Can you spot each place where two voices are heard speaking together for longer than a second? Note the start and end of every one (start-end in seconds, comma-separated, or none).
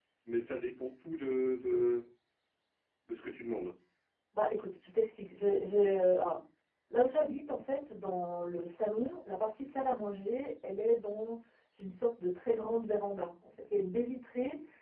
none